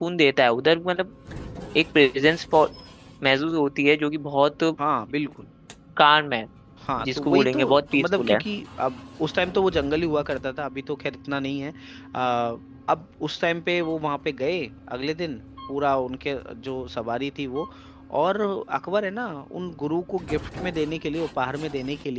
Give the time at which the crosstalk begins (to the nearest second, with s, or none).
7 s